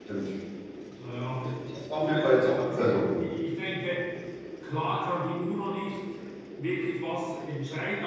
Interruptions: present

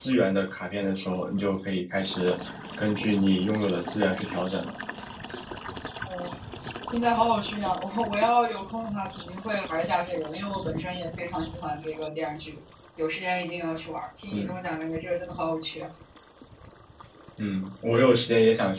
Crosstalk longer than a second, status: none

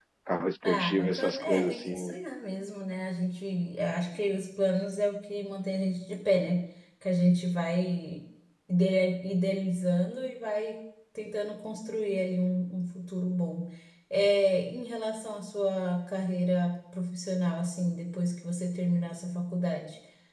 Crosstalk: present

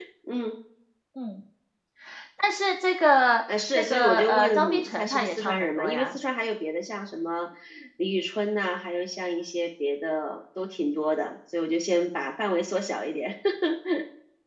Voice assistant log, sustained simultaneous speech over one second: present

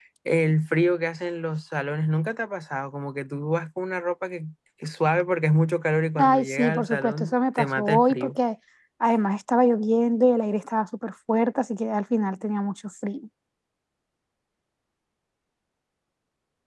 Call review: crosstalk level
present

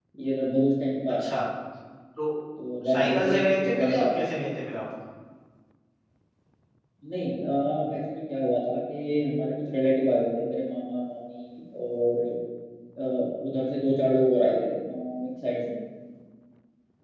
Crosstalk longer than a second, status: present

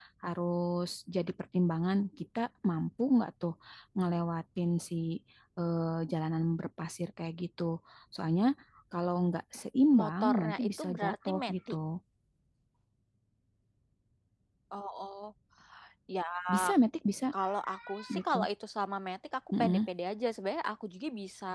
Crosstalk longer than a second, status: present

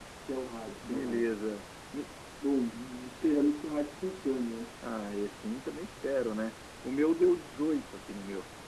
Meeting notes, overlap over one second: none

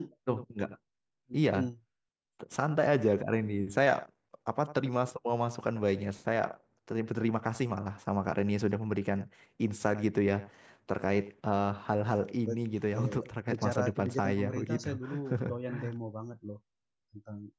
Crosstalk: present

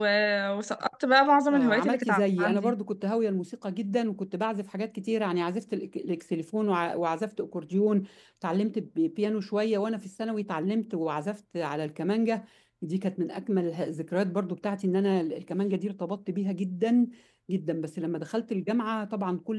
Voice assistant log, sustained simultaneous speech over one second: present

